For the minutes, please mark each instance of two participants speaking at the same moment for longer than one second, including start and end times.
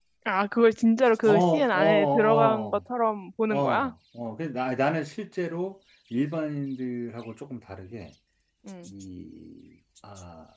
1.2-2.8

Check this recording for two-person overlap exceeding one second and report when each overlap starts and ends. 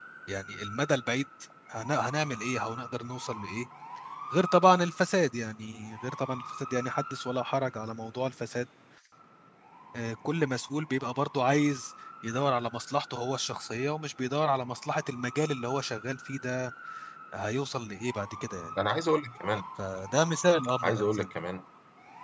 none

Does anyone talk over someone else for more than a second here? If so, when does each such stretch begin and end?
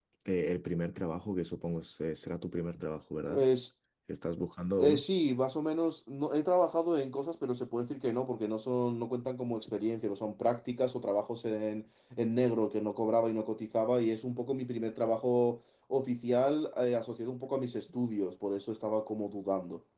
none

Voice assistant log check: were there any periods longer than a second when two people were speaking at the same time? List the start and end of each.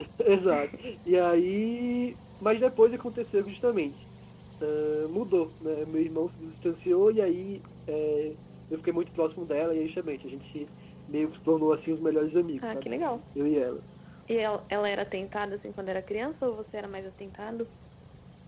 none

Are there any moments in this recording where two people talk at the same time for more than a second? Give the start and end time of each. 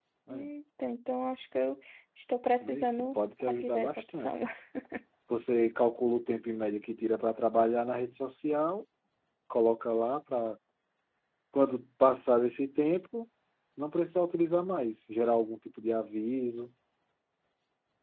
2.6-4.3

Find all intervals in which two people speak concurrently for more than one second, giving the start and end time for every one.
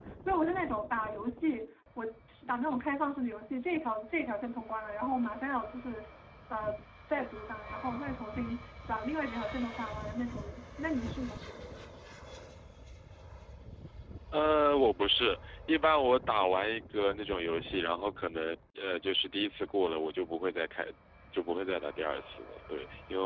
none

